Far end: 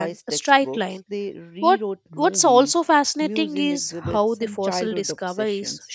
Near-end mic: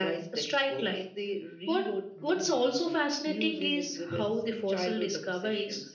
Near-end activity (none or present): none